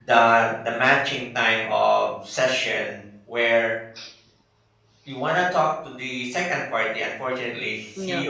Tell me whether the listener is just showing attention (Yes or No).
Yes